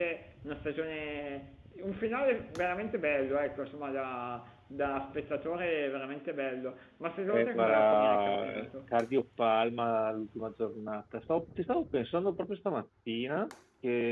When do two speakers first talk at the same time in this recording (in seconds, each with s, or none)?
7.3 s